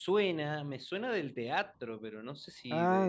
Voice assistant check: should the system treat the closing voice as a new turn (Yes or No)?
Yes